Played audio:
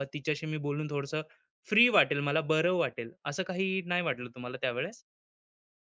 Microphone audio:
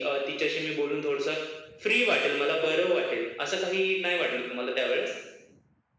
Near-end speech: none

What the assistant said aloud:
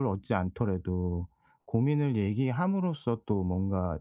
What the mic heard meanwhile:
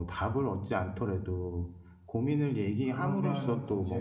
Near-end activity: present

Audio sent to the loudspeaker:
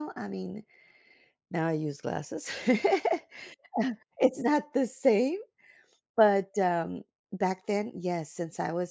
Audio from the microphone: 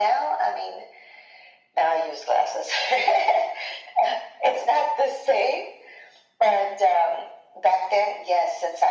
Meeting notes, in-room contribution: none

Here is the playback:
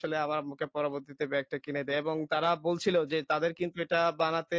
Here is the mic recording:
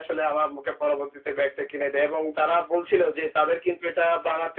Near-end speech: none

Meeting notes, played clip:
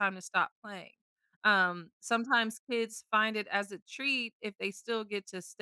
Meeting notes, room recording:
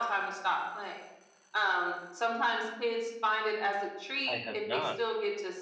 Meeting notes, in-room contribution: present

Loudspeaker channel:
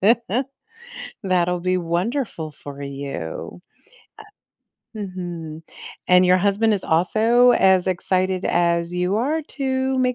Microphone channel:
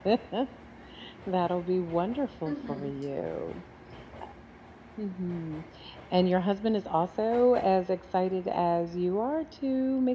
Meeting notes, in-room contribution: present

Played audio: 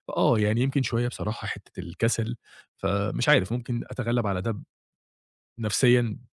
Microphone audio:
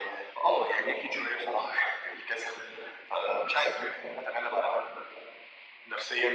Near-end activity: none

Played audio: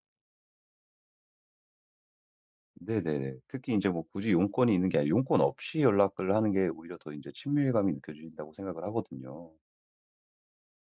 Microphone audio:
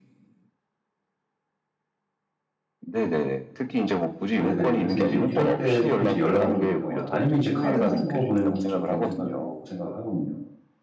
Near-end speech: present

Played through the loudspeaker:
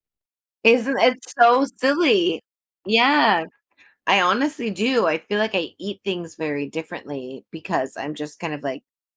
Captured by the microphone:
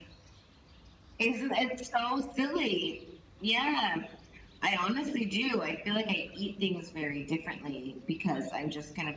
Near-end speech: none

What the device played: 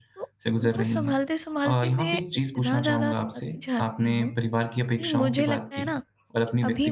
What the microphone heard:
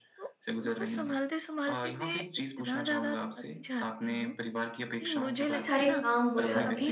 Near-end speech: present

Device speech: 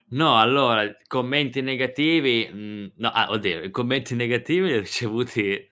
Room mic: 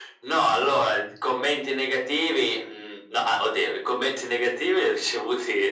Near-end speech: none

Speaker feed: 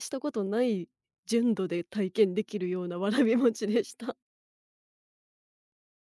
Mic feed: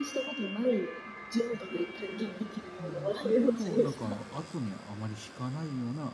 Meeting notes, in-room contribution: present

